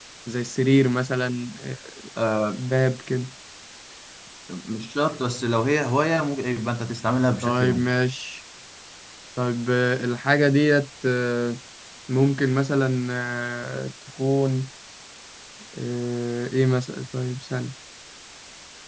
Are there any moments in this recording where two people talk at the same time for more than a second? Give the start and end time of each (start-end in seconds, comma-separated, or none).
none